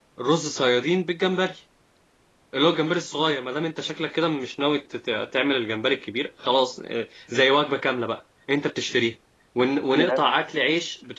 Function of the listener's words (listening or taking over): listening